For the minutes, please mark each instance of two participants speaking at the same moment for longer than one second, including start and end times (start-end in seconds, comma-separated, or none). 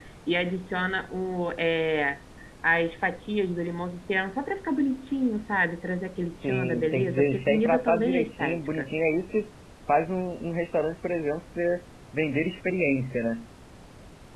6.4-8.9